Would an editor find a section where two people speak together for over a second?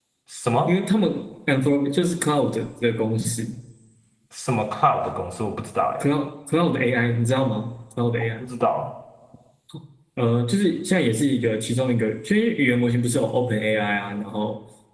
No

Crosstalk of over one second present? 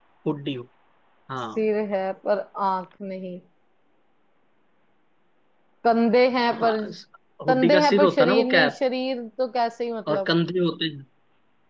Yes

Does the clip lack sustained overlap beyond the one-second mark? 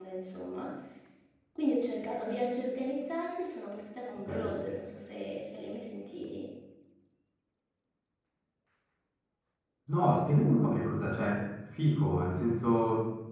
Yes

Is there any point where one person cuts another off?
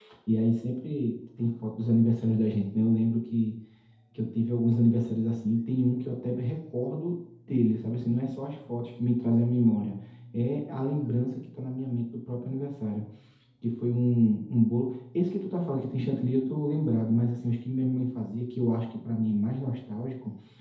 No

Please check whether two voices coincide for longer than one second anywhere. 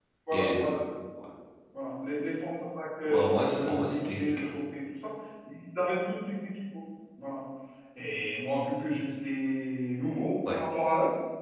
Yes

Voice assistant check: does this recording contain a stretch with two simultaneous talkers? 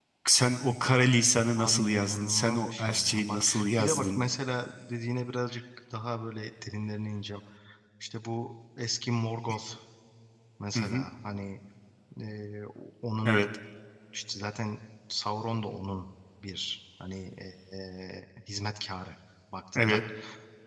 Yes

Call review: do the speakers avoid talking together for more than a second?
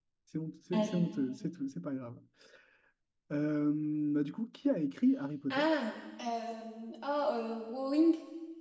Yes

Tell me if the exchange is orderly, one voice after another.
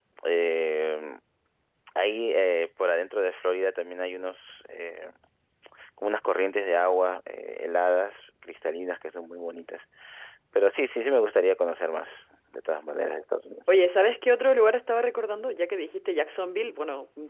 Yes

